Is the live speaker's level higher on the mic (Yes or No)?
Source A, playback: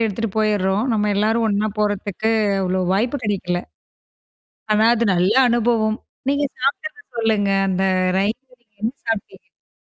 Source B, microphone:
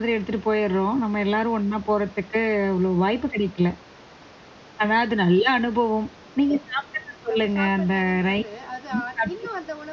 No